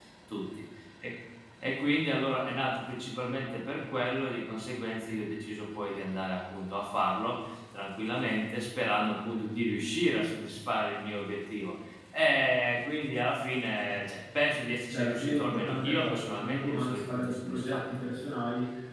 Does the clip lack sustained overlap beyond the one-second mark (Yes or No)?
No